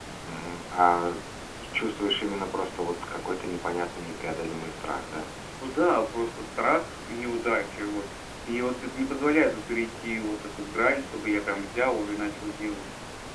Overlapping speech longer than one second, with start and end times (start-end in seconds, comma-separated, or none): none